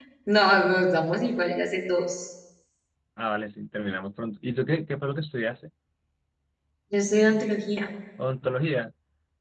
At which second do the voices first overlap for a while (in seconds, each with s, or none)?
none